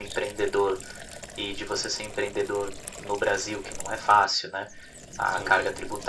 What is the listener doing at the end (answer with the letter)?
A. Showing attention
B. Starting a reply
A